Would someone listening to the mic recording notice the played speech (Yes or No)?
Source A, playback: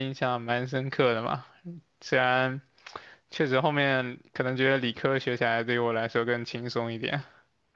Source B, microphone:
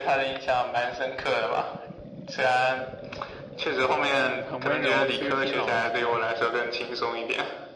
Yes